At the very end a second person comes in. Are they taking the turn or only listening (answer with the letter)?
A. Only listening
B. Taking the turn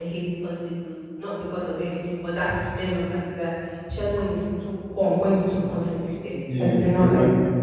B